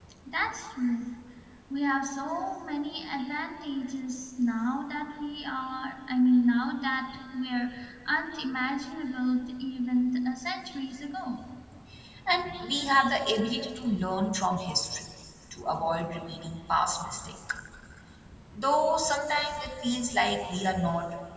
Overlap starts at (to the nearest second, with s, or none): none